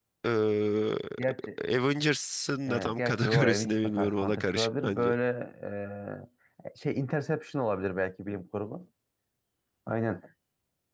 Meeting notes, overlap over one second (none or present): present